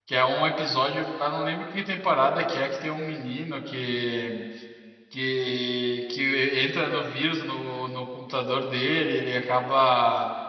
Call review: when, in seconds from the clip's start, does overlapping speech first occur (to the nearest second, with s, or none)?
none